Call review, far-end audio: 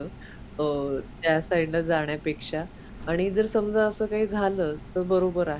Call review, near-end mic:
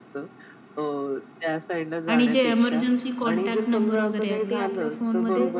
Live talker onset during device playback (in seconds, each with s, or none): 2.1 s